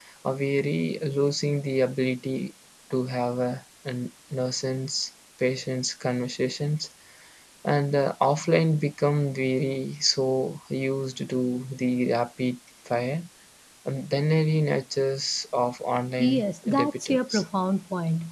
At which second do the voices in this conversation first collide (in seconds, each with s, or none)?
16.2 s